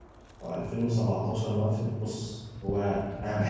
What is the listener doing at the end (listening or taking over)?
listening